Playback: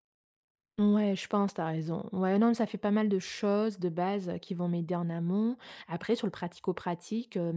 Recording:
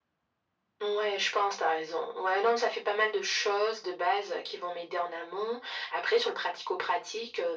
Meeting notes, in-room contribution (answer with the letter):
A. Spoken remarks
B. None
B